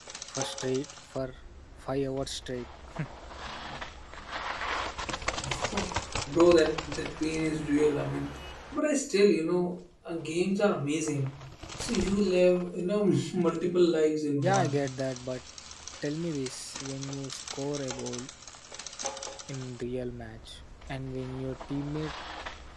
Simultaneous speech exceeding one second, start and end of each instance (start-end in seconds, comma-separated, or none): none